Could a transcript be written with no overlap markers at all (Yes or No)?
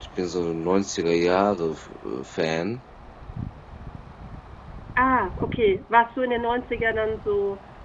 Yes